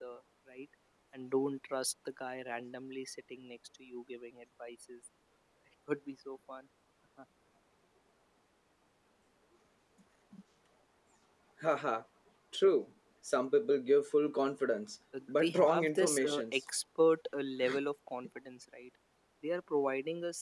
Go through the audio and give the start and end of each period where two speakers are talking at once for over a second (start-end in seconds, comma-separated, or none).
15.4-16.6